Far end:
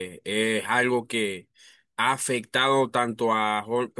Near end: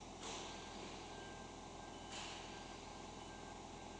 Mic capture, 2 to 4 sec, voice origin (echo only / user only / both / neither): neither